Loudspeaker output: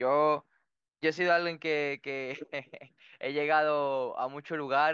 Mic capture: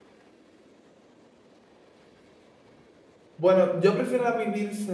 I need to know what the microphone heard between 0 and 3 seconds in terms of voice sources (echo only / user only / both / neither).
neither